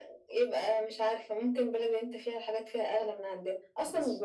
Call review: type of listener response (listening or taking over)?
listening